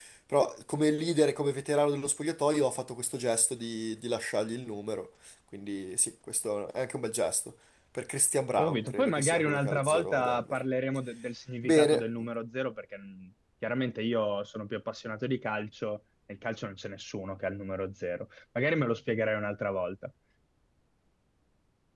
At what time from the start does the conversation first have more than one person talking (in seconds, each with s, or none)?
8.6 s